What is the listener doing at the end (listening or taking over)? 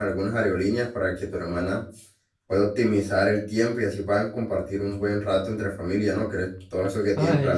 taking over